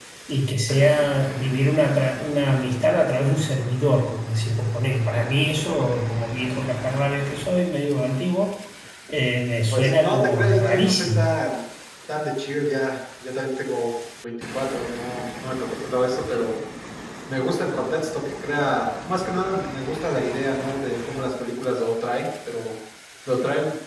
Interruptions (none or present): present